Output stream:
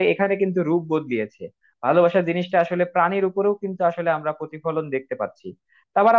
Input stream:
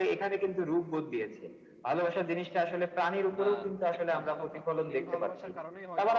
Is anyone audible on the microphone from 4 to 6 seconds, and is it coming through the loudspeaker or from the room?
both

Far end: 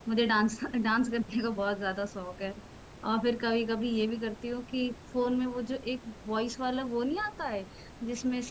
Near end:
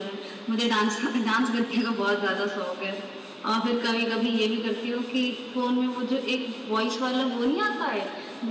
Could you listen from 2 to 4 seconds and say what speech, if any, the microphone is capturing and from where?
echo only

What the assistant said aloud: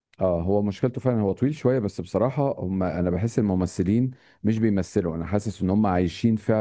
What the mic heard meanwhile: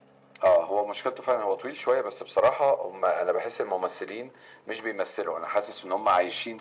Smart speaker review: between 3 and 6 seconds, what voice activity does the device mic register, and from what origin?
echo only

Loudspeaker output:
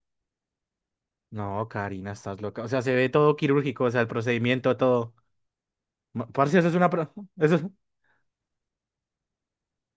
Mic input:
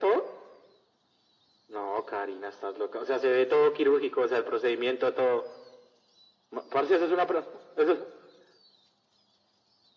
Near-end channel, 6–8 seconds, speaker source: echo only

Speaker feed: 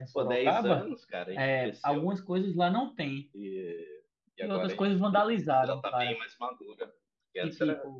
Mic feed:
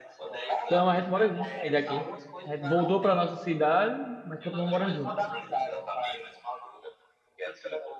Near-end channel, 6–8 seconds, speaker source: echo only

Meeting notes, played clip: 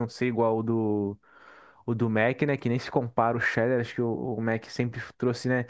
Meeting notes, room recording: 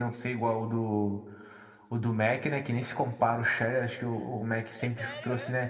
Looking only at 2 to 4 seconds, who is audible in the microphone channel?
echo only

